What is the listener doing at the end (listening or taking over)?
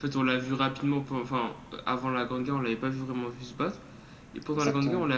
listening